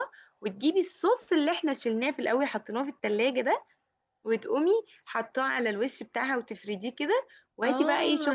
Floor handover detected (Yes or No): Yes